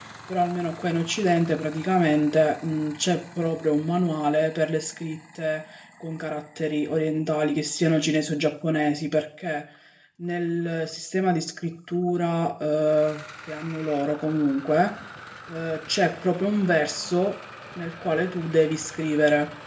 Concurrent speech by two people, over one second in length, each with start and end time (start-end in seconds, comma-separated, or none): none